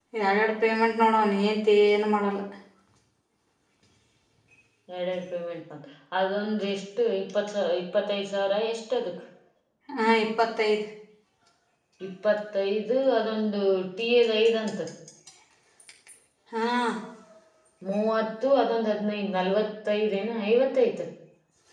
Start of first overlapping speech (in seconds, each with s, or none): none